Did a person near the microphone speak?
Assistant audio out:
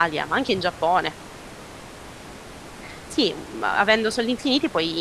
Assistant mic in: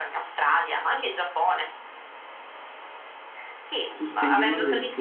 Yes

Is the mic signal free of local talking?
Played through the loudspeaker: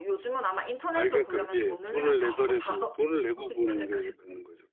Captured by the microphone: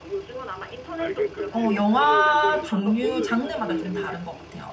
No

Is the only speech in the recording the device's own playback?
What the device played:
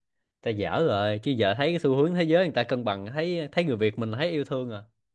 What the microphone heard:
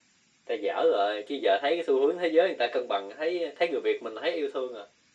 Yes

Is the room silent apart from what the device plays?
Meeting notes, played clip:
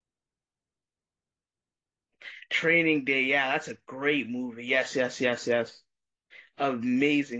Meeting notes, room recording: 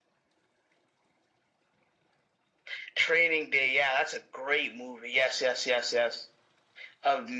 Yes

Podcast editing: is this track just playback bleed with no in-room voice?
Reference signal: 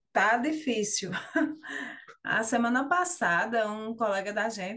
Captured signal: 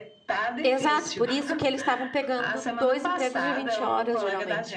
No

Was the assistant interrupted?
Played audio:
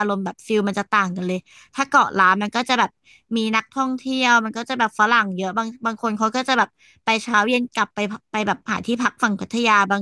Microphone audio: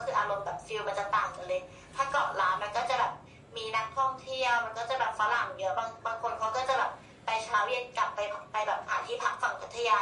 No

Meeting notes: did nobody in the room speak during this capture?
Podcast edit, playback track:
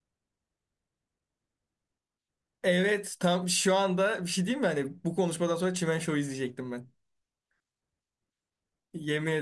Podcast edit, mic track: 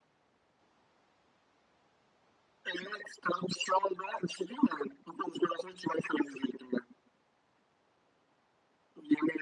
Yes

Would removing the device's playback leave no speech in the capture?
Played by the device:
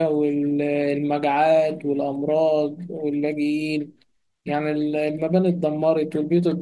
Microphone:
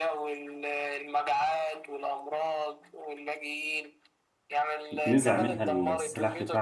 No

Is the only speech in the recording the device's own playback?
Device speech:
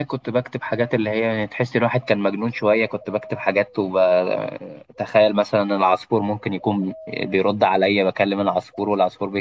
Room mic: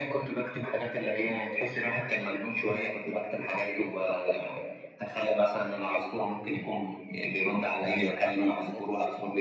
No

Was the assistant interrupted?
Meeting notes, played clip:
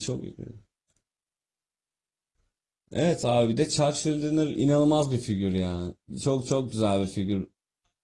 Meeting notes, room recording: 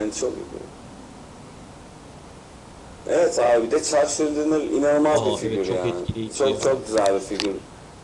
Yes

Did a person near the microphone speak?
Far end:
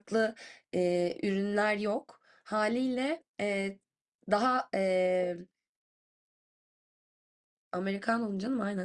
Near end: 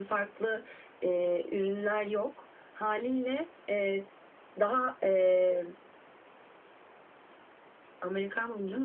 No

